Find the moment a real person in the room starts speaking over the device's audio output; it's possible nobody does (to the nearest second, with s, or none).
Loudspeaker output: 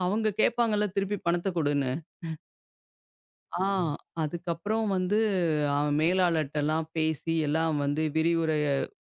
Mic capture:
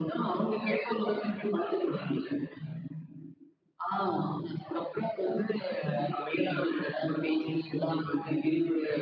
none